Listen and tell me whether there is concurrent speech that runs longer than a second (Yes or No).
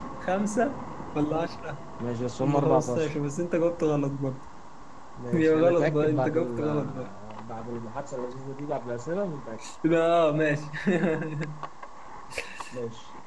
Yes